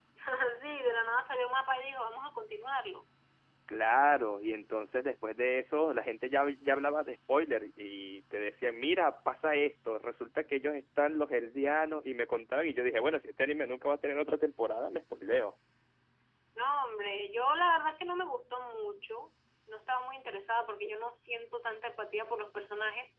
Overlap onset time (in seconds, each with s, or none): none